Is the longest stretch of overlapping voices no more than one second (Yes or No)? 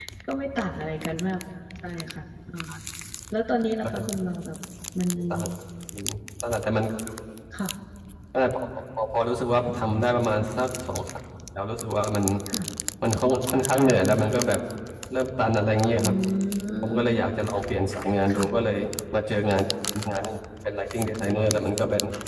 Yes